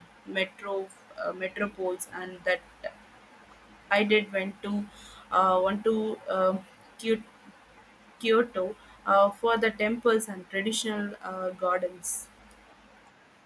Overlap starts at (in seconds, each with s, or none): none